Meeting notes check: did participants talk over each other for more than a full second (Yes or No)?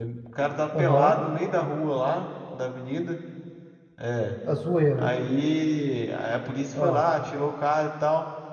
No